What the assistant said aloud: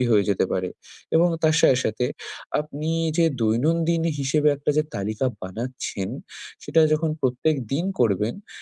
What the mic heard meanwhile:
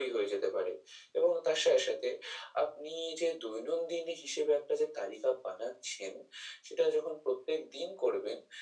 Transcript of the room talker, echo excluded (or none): none